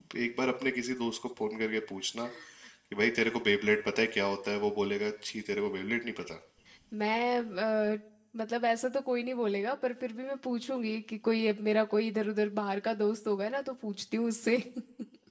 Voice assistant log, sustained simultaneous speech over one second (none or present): none